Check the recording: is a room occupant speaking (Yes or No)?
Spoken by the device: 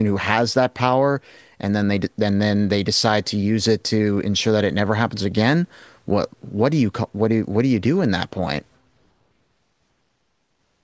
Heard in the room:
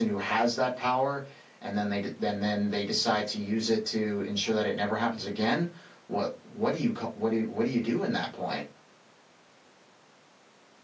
No